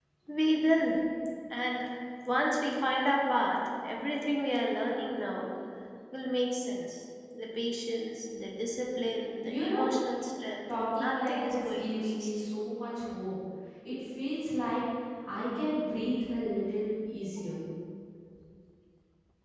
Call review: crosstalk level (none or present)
present